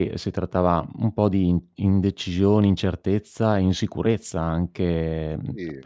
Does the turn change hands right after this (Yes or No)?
No